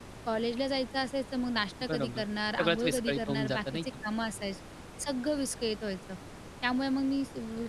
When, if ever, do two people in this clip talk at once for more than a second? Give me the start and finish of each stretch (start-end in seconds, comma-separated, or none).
2.6-3.9